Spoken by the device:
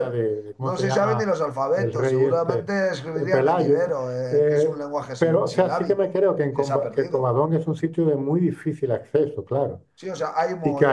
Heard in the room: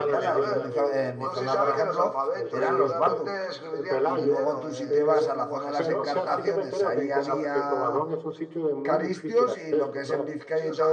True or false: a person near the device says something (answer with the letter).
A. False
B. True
B